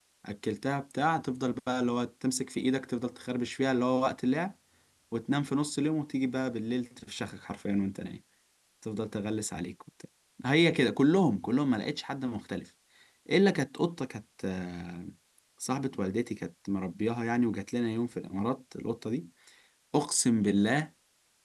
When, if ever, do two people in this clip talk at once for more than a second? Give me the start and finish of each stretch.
none

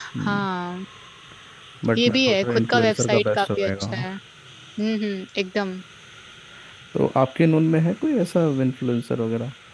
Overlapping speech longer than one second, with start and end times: 2.0-4.0

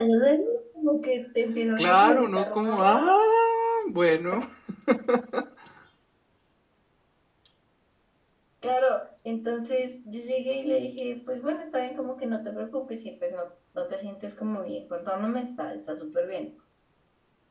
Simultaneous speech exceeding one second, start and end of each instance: 1.8-3.1

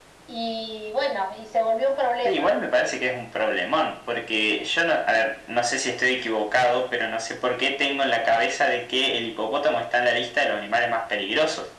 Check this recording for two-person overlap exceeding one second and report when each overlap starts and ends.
none

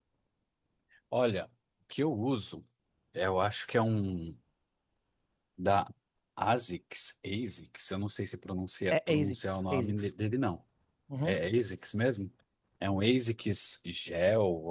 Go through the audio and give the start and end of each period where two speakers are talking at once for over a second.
8.9-10.1

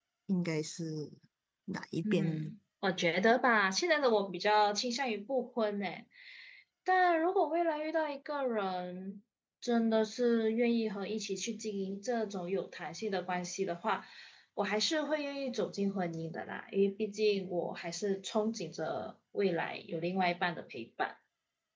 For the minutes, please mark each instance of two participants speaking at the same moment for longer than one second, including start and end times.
none

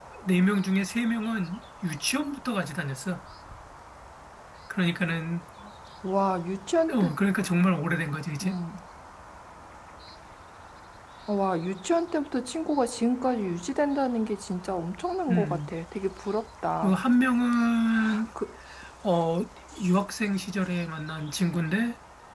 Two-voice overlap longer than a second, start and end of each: none

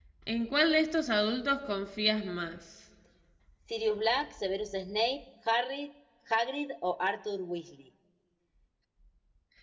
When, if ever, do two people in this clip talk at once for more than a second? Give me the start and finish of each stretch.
none

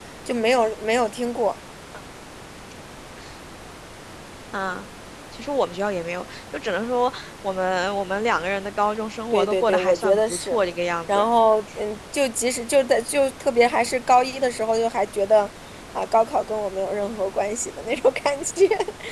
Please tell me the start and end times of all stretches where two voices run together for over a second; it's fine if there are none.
9.3-10.6

